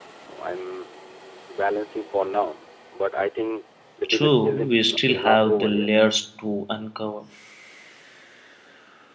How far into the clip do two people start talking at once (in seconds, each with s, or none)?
4.0 s